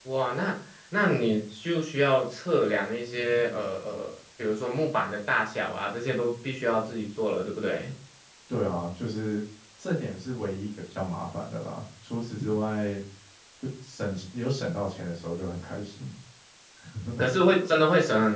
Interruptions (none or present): none